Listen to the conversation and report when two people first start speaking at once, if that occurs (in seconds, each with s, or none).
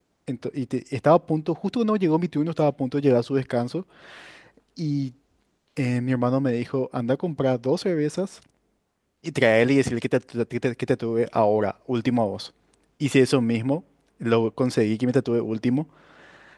none